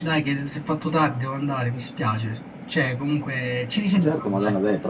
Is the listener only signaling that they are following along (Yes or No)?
No